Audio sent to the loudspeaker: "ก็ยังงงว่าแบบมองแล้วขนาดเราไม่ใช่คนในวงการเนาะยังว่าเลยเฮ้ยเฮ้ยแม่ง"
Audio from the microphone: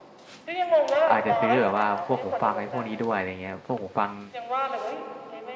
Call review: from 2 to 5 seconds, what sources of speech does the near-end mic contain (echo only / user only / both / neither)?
both